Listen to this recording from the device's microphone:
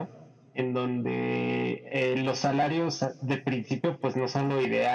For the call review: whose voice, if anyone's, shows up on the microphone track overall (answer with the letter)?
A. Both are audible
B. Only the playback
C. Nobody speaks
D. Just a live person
B